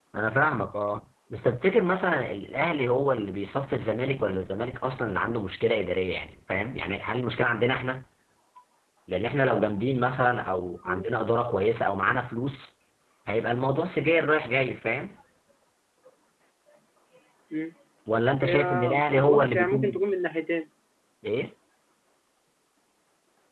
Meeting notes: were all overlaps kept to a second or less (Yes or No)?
No